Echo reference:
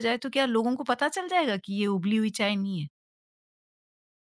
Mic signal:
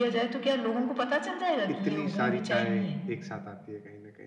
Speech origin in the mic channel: both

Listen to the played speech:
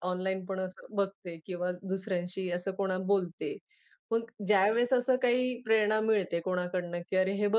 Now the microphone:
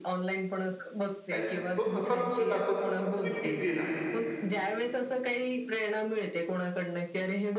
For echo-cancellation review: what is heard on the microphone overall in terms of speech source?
both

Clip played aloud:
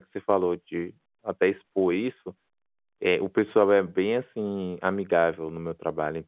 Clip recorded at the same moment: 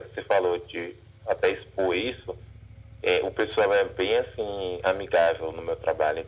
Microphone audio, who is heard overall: echo only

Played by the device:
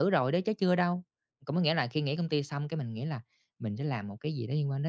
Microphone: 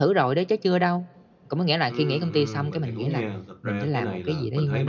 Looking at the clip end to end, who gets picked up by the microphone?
both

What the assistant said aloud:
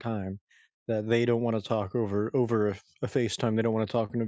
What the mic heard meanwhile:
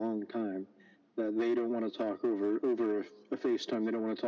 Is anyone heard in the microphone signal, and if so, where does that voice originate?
echo only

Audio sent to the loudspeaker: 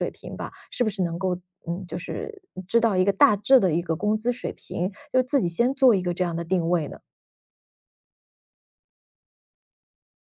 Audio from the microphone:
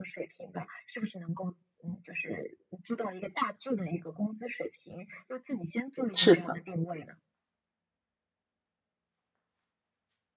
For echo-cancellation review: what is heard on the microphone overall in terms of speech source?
both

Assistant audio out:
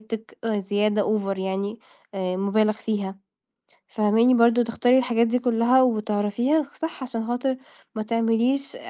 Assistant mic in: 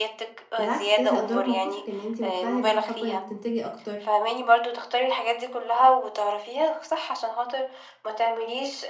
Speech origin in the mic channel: both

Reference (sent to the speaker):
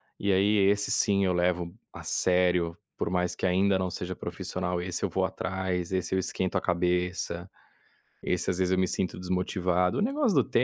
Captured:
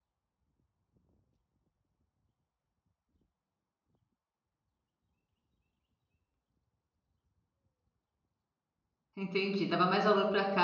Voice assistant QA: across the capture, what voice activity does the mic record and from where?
user only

